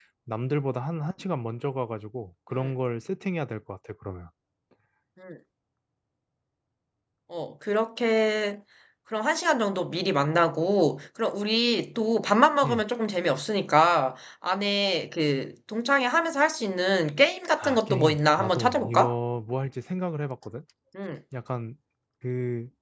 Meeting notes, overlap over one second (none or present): present